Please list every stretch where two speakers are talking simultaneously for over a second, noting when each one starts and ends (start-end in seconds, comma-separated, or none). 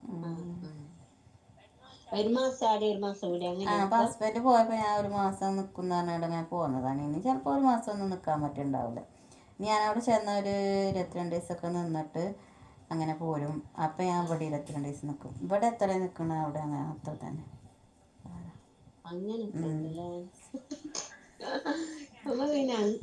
none